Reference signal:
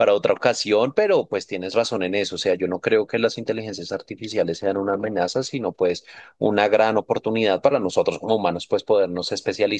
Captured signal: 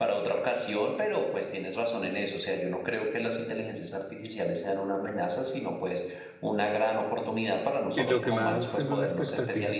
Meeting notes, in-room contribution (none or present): present